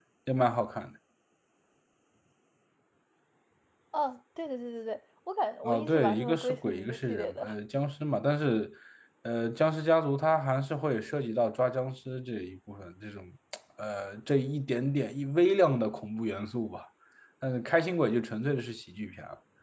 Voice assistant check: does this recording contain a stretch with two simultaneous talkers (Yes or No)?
Yes